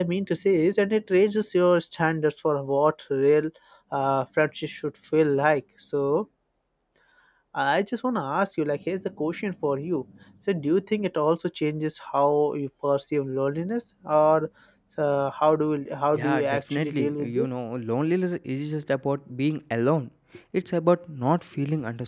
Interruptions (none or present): present